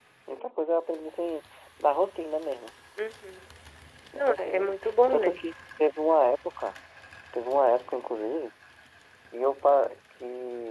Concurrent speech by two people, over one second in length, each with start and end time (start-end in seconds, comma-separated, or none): 4.2-5.4